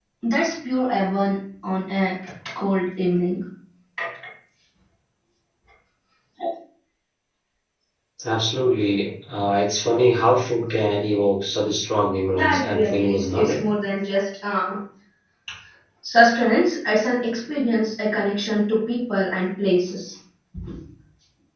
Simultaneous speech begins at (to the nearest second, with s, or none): 12 s